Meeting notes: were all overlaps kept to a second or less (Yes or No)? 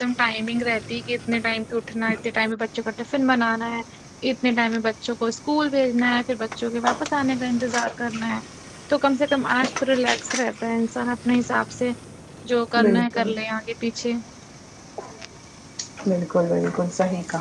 Yes